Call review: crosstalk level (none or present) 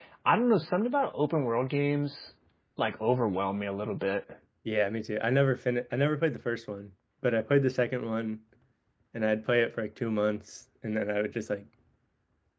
none